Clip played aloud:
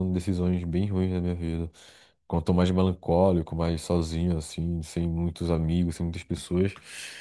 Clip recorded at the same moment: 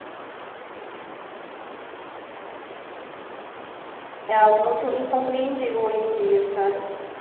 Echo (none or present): none